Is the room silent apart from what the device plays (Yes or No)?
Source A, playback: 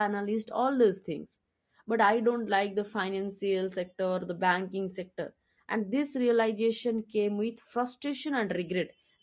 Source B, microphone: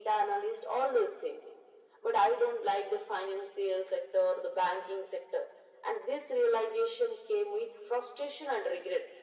Yes